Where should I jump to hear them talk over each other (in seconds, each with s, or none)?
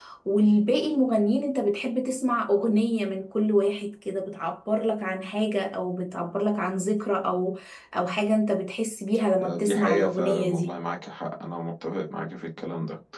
9.4 s